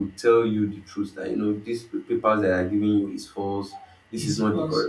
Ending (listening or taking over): listening